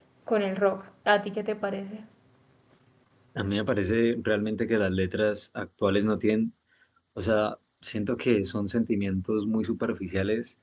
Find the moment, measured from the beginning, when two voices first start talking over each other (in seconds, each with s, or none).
none